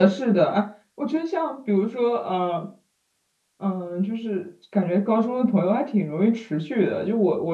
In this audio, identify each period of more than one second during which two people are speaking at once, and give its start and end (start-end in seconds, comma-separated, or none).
none